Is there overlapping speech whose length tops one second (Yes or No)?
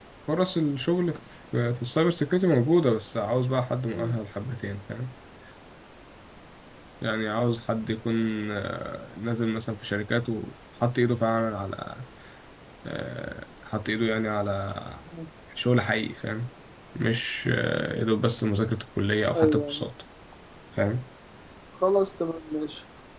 No